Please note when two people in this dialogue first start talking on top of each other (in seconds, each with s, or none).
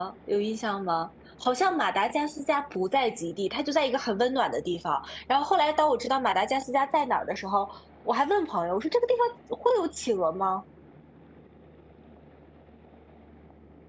none